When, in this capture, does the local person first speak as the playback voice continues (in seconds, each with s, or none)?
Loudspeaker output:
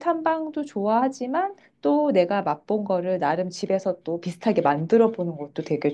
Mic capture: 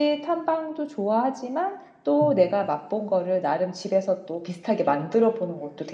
2.2 s